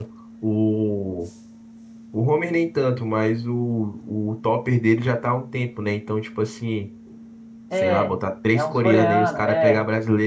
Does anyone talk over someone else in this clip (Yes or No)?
Yes